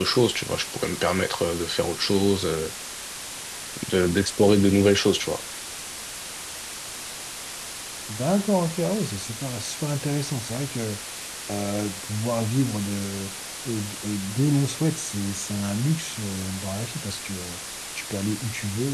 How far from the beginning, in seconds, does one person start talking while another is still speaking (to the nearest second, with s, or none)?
none